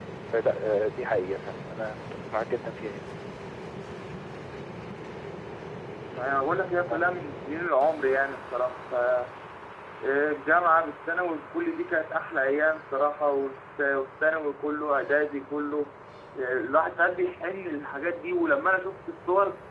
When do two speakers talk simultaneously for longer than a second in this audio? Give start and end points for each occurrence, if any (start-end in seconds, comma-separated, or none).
none